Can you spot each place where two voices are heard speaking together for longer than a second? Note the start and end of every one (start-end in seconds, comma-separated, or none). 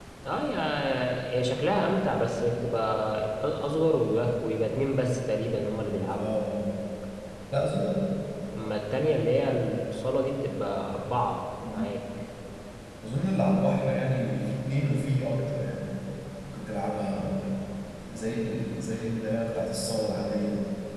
none